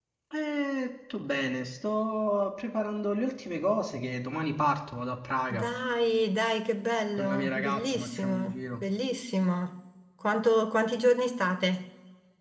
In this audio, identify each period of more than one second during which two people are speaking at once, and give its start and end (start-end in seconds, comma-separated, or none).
7.2-8.8